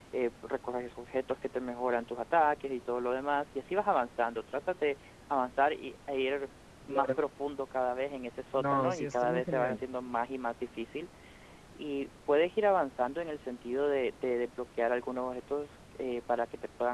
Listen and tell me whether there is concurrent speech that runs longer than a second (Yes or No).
Yes